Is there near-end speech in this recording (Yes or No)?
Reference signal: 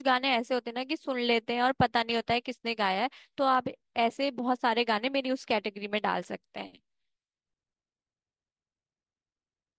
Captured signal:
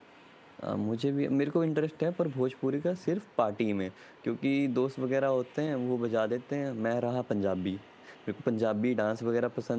Yes